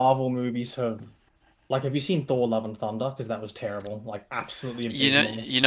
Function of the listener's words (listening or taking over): taking over